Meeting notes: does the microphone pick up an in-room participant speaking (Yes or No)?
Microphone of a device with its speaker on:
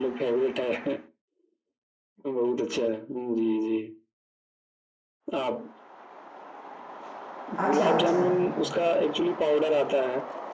Yes